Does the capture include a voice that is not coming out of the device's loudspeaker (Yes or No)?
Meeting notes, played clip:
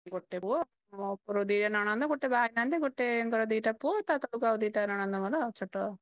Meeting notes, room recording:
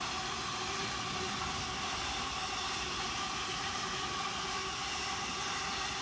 No